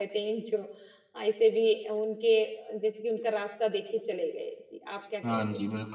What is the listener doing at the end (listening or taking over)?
taking over